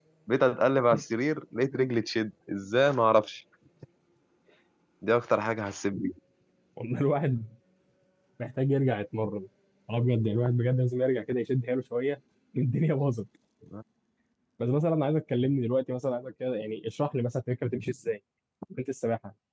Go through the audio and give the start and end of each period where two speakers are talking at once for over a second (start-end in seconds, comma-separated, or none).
none